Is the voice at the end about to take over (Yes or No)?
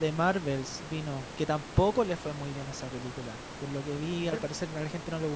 No